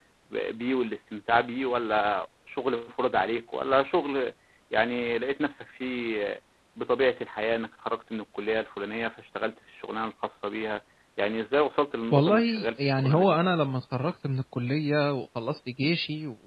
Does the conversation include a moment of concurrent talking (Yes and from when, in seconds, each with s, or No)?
Yes, from 12.1 s